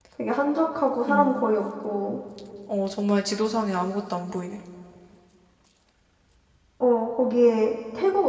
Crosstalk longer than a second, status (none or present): none